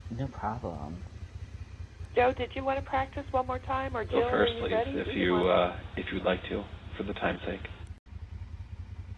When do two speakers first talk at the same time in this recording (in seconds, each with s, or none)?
4.1 s